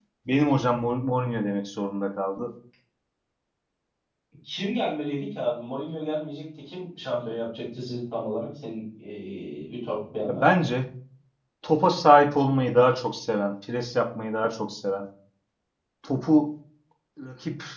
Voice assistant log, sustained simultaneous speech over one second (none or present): none